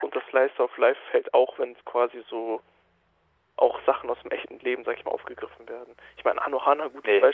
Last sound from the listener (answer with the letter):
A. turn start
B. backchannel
B